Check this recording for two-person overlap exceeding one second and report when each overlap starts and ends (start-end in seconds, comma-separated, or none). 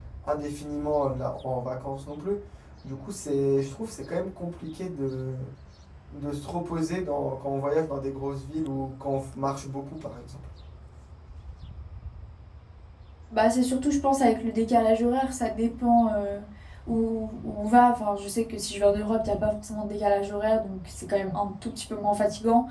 none